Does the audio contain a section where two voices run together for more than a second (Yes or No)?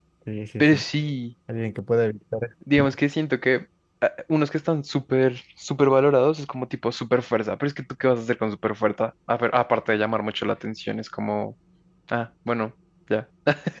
No